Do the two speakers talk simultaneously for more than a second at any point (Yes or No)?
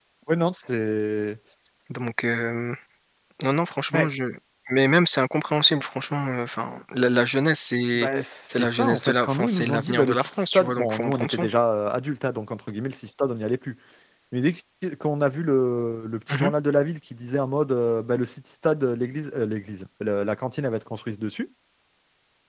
Yes